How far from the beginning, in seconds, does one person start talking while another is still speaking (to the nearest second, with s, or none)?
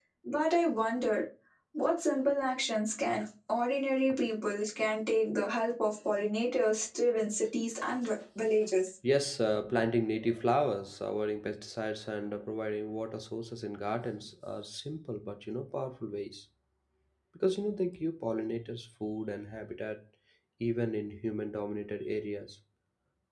none